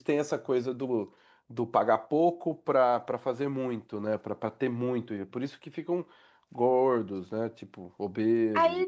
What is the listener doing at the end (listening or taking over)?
taking over